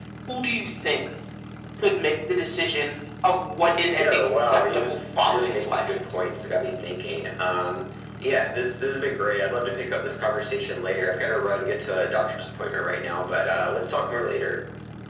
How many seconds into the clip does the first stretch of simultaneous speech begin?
4.0 s

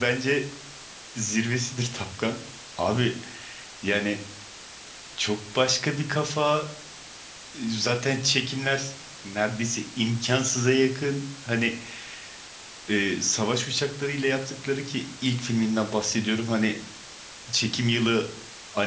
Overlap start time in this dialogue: none

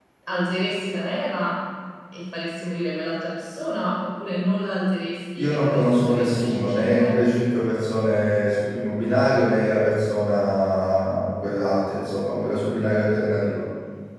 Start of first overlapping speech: 5.4 s

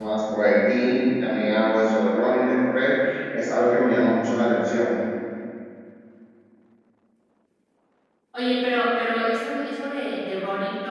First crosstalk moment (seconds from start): none

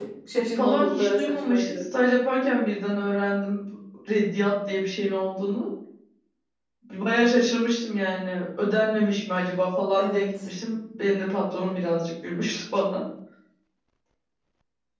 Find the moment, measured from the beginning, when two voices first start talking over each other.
0.6 s

